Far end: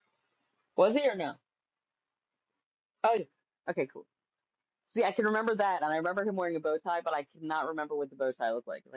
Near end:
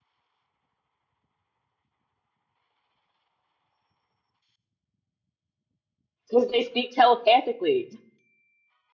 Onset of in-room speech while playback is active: 6.3 s

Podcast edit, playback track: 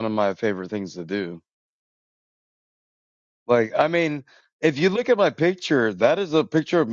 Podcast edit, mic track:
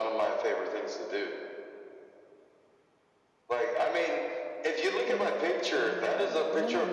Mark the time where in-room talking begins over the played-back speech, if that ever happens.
5.1 s

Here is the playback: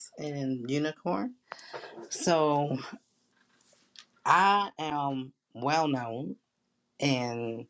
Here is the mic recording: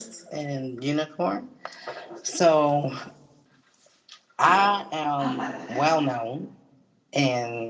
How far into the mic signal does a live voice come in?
4.4 s

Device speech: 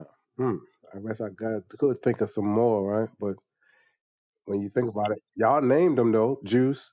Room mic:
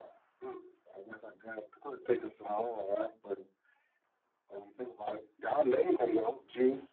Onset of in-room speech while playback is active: none

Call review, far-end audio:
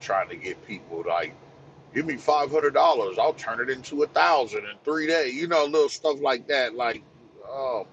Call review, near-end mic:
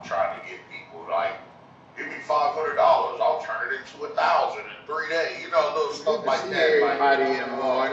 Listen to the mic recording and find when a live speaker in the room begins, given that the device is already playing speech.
5.9 s

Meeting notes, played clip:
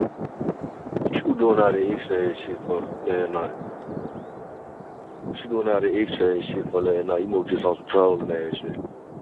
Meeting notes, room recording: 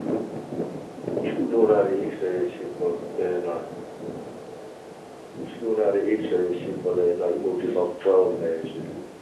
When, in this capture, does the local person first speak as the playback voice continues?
none

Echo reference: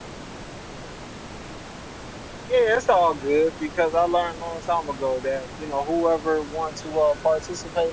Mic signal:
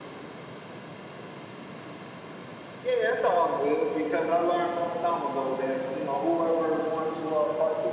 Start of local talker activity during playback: none

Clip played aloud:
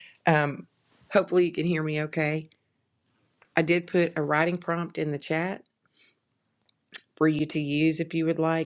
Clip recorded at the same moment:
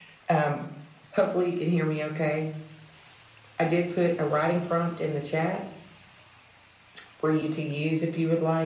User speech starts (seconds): none

